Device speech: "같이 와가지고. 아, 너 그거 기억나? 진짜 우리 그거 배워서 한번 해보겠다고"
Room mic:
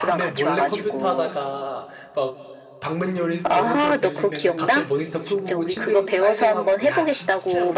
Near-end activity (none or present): present